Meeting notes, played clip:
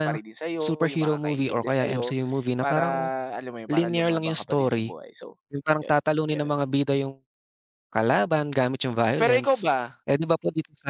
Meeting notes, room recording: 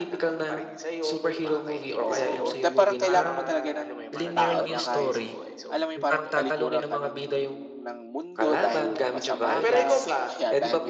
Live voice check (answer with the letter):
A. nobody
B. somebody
B